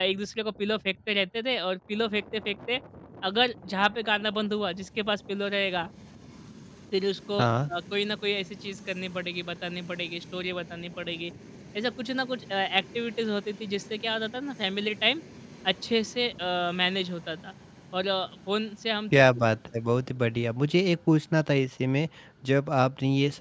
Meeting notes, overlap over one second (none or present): none